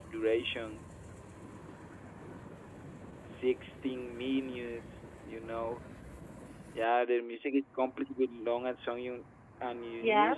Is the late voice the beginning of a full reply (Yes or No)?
No